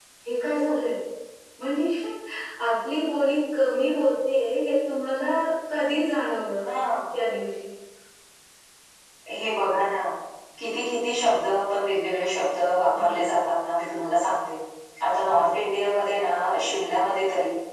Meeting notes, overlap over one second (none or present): none